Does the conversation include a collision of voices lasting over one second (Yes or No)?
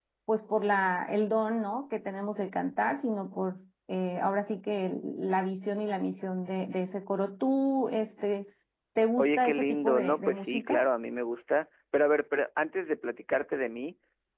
Yes